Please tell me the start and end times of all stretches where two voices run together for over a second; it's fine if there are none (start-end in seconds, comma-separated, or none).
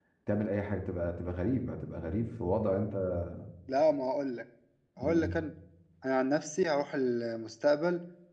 none